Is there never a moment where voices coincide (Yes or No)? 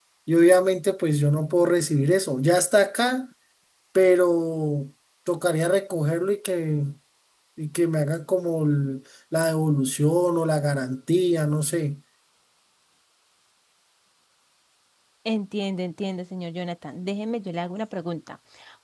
Yes